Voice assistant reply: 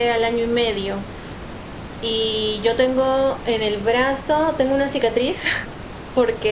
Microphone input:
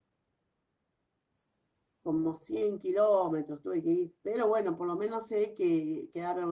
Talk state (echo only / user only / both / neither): user only